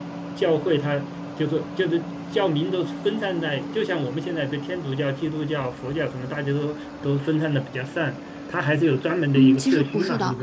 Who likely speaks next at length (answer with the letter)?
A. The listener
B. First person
A